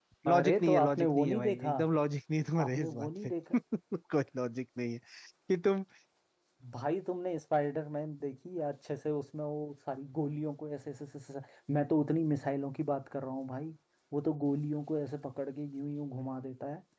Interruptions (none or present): present